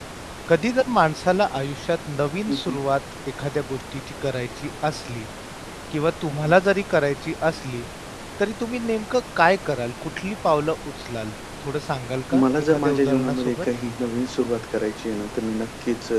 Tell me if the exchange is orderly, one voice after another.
No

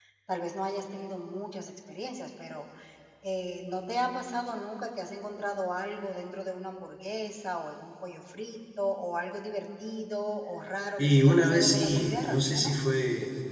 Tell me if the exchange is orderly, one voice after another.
No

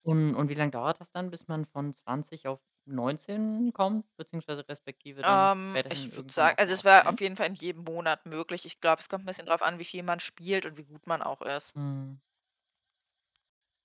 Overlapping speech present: Yes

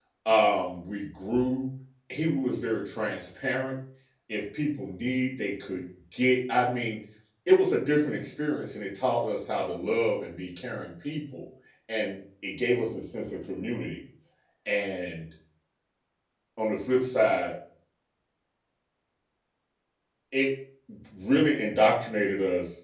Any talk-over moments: No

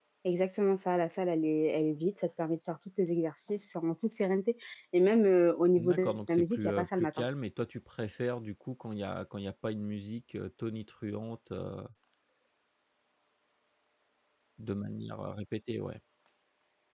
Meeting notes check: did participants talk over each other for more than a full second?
Yes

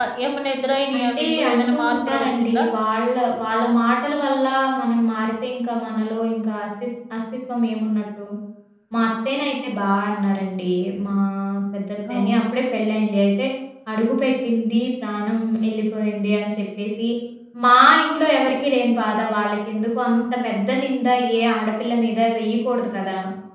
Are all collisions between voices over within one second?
No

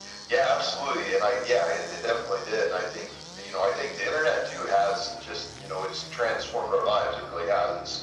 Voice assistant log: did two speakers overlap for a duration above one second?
No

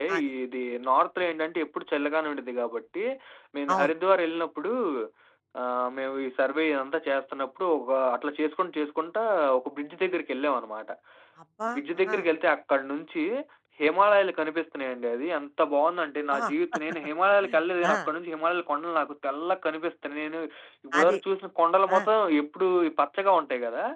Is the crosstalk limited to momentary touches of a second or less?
Yes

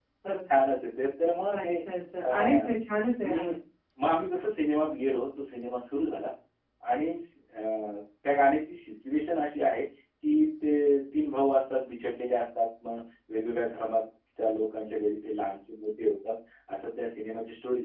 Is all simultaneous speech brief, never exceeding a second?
Yes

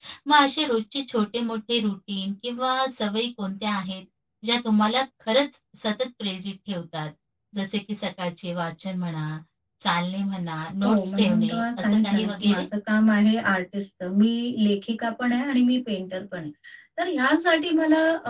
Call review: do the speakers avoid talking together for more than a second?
No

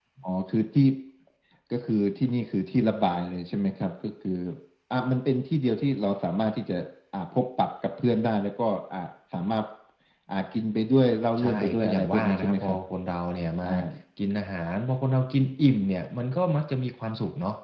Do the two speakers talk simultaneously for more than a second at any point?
Yes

